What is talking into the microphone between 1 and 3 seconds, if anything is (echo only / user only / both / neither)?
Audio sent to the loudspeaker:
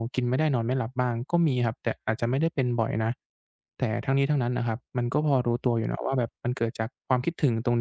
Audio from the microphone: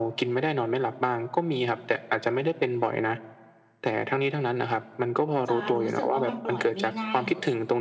echo only